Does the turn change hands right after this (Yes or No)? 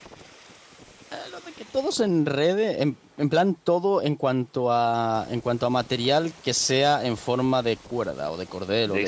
Yes